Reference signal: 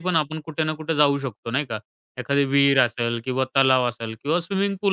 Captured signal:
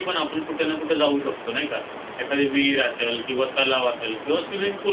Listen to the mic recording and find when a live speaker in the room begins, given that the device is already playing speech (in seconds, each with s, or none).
none